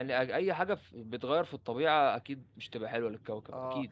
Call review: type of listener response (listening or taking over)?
taking over